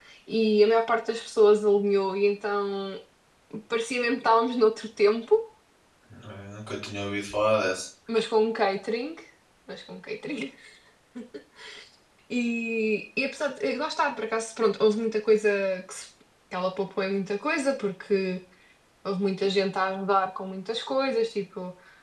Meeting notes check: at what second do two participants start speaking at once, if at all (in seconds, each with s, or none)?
none